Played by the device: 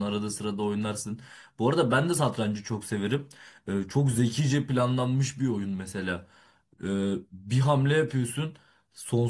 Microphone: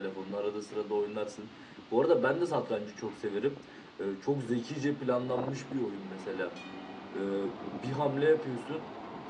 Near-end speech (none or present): none